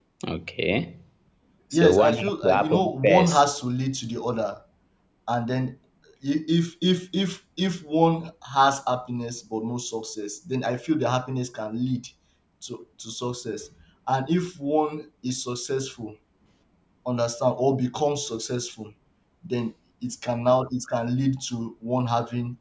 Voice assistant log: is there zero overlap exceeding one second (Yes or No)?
No